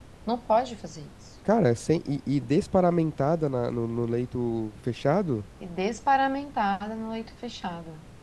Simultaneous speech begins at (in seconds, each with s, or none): none